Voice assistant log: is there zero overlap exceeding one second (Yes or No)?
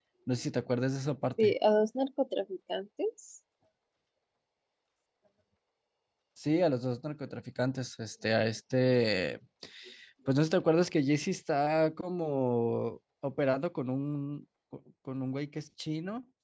Yes